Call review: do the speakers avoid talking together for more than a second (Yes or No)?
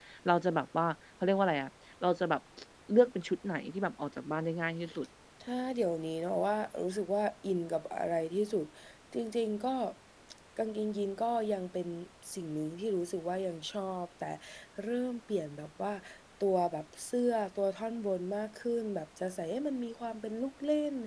Yes